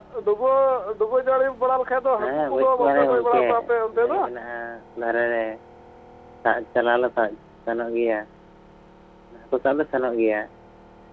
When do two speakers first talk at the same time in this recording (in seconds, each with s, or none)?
2.2 s